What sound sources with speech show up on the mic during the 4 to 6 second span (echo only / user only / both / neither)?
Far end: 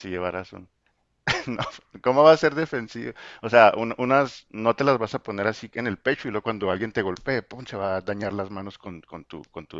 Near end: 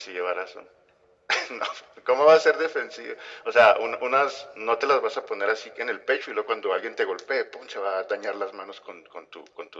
echo only